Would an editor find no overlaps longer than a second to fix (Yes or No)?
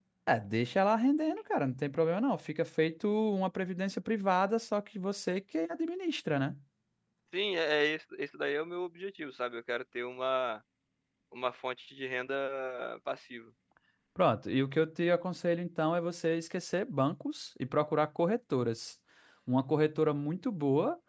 Yes